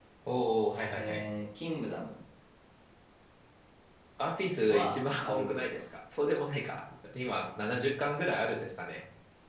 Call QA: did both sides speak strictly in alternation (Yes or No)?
No